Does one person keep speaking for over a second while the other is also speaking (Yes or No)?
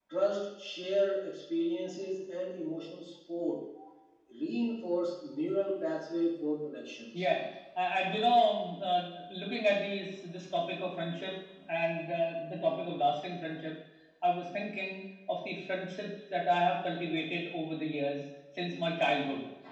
No